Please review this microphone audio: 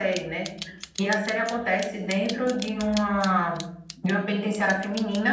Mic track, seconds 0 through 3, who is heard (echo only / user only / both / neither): echo only